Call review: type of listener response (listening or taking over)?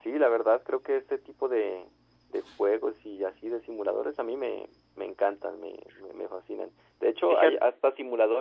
listening